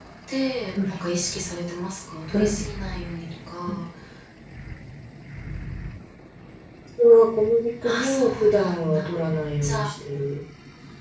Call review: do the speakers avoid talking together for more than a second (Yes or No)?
No